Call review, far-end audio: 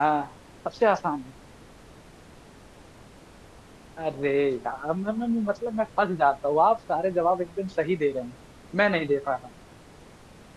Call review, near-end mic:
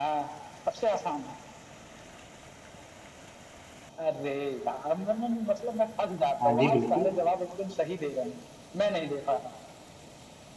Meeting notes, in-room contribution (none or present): present